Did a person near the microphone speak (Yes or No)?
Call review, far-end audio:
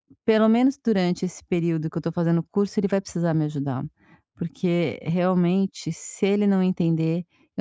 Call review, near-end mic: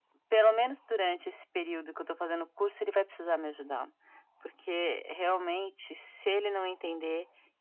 No